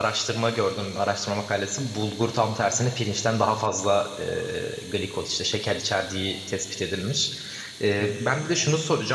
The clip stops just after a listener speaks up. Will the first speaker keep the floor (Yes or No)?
Yes